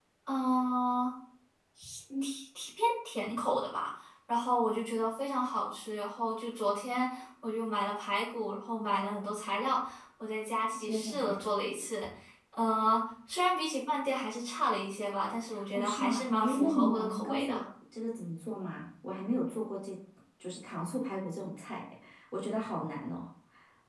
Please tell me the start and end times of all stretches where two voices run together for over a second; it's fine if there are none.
15.7-17.6

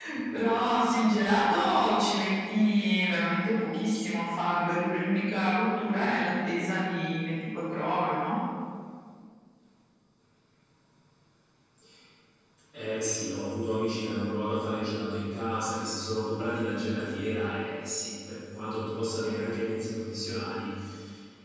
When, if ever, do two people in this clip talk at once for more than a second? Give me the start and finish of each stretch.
none

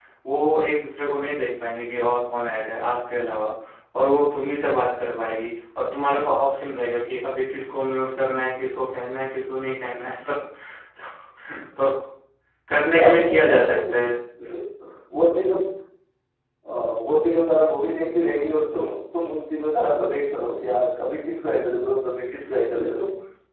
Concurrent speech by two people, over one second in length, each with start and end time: 12.9-14.1

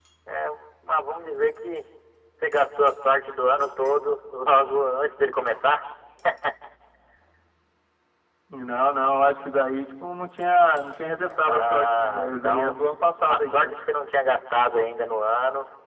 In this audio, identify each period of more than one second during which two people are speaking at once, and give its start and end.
11.2-12.8

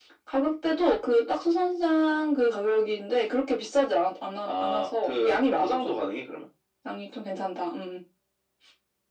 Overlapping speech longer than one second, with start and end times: 4.5-6.0

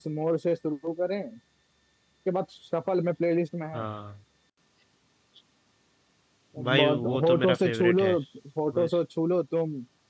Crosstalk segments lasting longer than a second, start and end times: 6.7-8.1

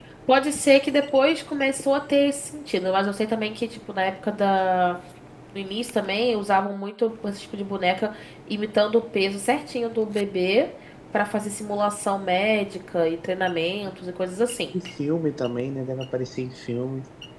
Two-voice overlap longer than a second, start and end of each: none

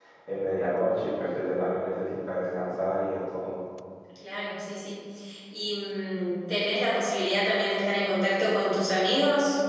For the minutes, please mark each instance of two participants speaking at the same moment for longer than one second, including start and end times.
none

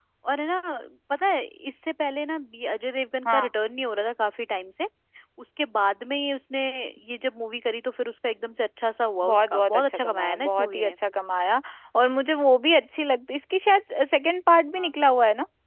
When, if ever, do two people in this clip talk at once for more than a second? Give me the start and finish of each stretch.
9.2-10.9

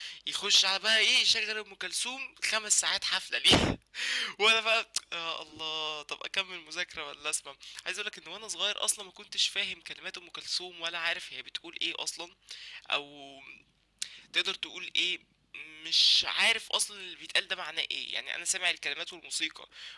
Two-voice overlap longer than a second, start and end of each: none

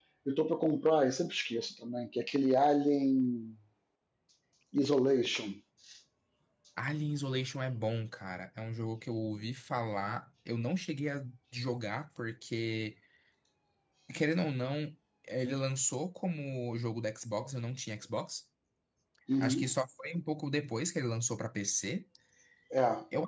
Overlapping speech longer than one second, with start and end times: none

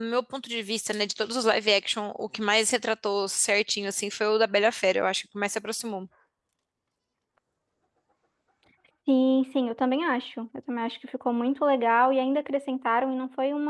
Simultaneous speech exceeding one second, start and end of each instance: none

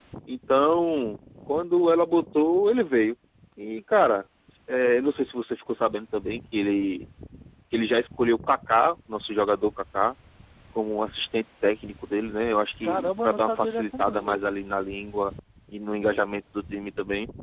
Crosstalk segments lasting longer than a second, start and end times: 12.8-14.4

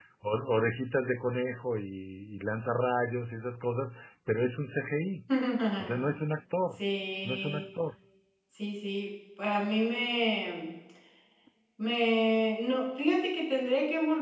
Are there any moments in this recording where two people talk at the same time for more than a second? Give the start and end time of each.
none

